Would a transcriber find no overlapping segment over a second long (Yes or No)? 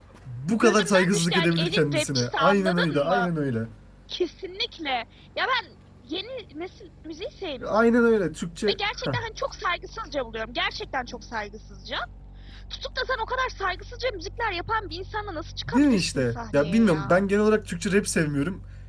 No